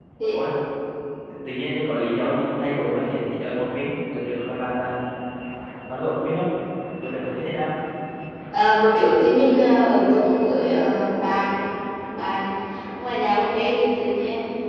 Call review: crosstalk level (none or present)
none